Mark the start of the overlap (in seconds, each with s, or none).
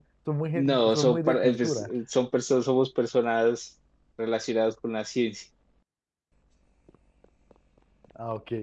0.6 s